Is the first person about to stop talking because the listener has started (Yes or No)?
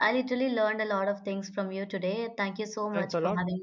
Yes